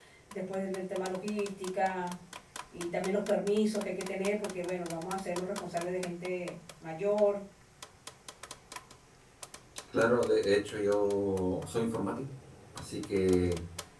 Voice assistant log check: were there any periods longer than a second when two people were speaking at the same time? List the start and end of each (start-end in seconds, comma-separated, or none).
none